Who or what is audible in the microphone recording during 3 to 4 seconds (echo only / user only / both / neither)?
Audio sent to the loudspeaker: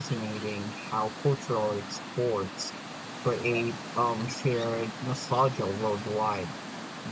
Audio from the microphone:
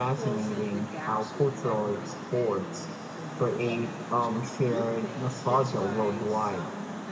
both